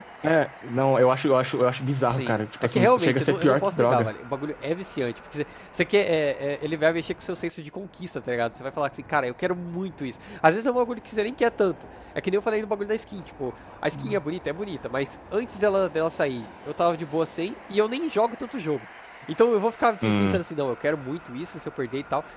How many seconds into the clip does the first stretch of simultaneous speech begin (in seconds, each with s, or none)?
2.0 s